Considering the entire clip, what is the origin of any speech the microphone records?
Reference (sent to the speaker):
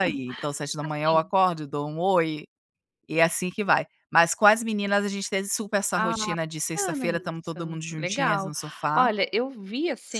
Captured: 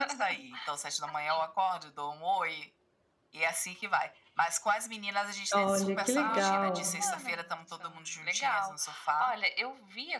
both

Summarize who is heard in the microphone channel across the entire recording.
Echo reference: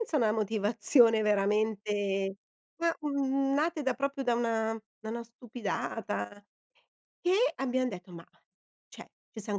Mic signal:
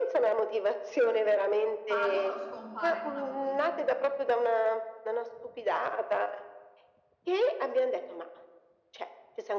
both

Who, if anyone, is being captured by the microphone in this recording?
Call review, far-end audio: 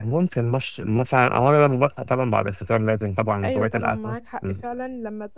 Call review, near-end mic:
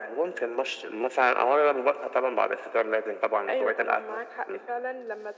echo only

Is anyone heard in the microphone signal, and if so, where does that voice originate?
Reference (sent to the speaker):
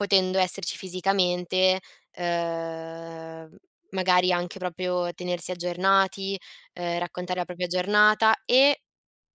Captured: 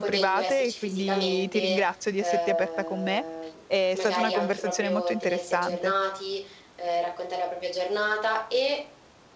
both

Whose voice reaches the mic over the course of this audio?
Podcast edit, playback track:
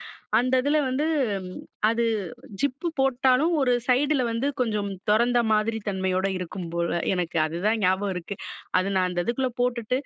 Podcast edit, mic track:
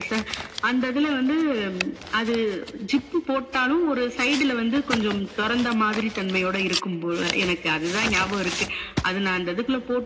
echo only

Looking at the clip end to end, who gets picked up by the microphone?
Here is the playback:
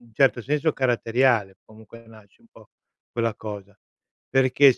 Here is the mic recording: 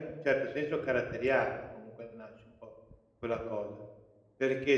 echo only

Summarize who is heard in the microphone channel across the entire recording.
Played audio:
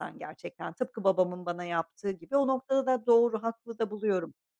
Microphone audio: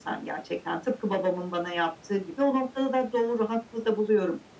echo only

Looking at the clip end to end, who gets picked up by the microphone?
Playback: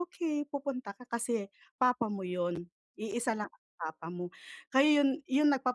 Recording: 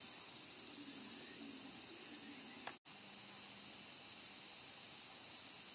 neither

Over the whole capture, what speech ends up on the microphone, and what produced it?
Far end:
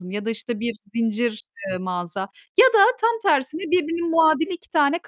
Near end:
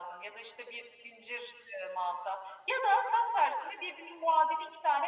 echo only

